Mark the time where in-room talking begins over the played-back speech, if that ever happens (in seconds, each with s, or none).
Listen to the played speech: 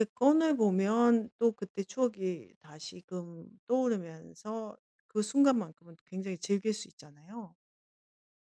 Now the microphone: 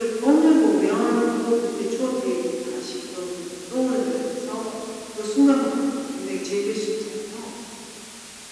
none